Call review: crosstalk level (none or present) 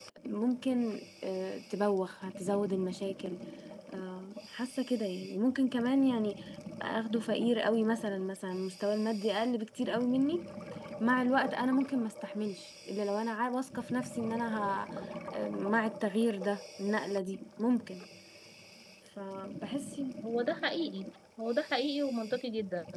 none